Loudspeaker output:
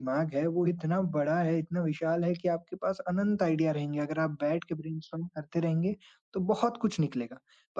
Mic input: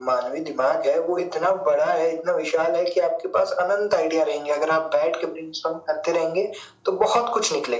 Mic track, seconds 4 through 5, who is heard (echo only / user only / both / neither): echo only